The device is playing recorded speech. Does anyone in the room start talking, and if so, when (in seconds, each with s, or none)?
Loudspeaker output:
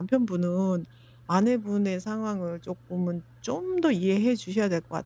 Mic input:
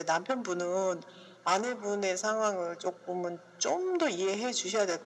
none